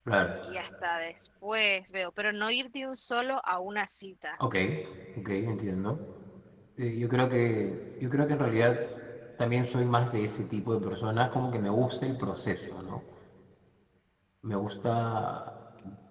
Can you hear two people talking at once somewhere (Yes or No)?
No